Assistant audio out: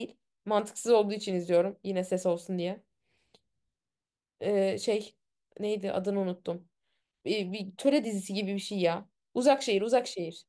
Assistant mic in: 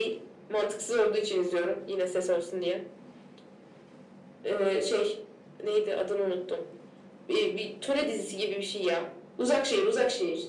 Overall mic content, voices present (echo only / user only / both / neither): echo only